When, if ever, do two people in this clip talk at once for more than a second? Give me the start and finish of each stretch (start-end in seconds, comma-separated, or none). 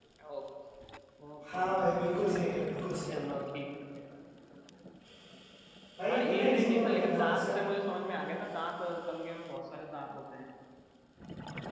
6.1-7.4